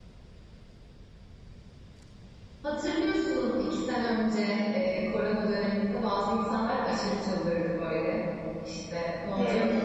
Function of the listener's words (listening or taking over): listening